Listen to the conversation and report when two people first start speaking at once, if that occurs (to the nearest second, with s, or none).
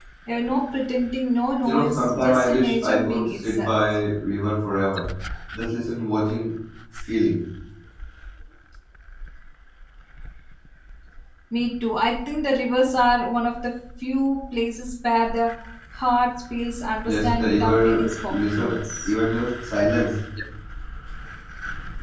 2 s